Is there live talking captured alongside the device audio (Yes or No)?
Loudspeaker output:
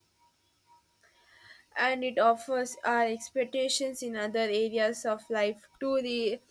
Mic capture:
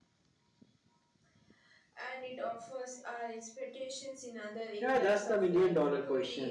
Yes